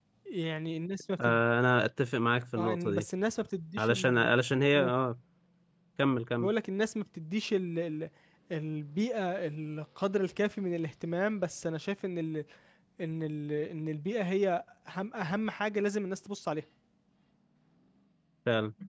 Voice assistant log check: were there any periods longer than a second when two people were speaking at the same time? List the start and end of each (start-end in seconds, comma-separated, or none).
none